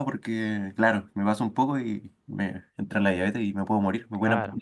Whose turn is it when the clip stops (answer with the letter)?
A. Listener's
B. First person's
A